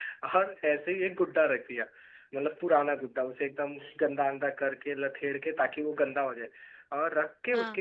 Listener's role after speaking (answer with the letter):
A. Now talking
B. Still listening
B